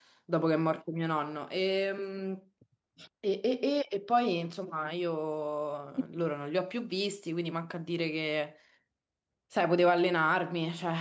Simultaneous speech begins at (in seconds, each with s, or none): none